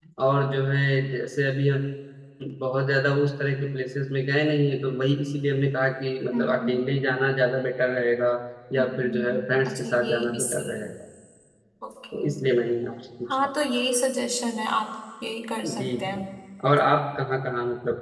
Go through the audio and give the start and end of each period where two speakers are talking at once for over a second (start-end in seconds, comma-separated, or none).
8.8-10.9